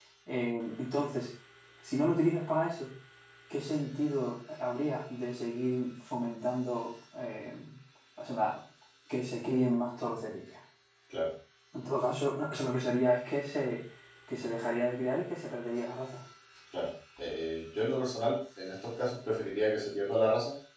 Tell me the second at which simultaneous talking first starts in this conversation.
none

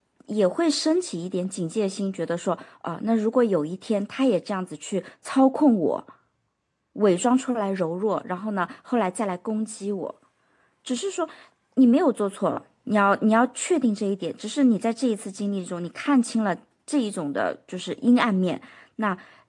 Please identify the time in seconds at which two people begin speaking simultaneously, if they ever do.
none

